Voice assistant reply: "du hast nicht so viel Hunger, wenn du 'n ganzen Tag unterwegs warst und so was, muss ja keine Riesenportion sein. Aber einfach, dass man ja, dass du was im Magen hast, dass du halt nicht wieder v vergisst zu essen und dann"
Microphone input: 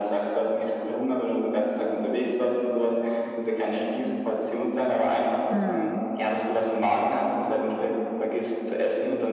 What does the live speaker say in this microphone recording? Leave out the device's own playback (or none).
Mhm.